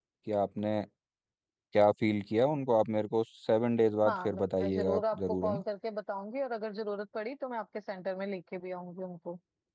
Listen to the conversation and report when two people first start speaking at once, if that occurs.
4 s

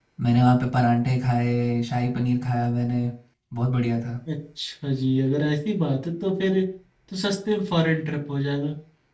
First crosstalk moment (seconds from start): none

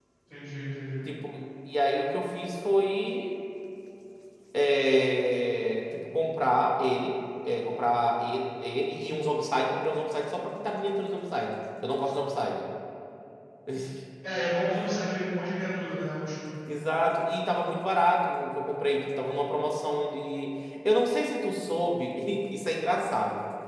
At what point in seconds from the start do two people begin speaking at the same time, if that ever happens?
none

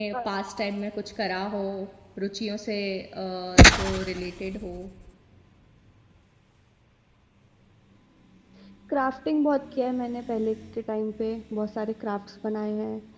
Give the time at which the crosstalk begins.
none

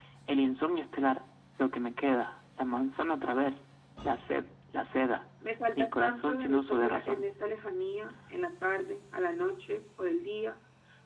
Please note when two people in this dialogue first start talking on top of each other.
6 s

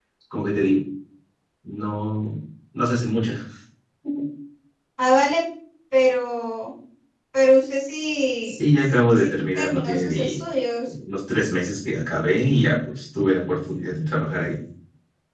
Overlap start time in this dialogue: 8 s

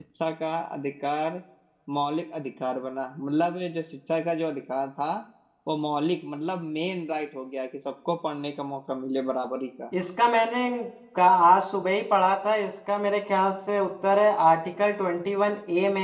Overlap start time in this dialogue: none

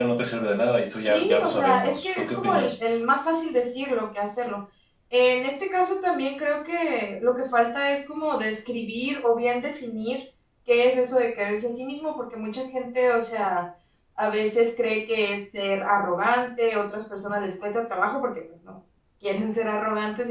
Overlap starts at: 1 s

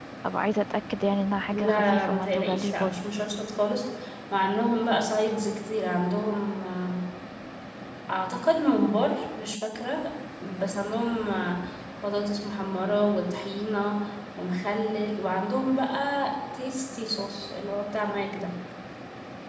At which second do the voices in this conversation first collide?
2 s

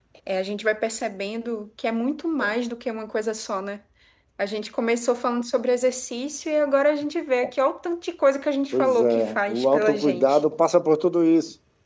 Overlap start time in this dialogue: 9 s

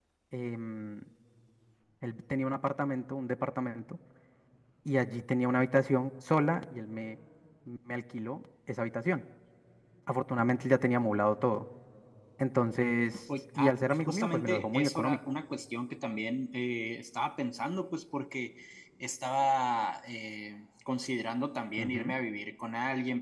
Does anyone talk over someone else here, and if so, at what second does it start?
14 s

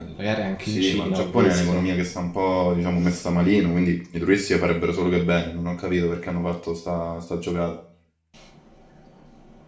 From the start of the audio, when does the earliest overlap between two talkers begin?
1 s

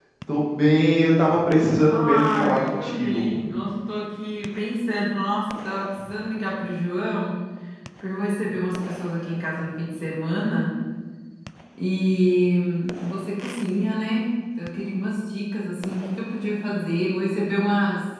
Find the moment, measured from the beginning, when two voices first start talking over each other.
2 s

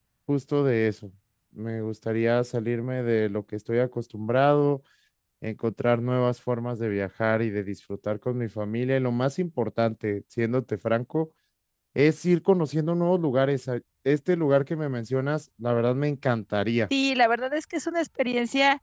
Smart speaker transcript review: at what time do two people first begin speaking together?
none

